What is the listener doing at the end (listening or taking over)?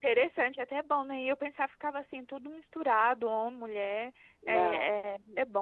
listening